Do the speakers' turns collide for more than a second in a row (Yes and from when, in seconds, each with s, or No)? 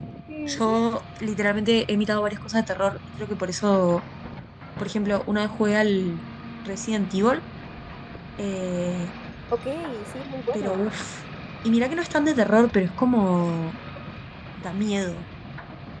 No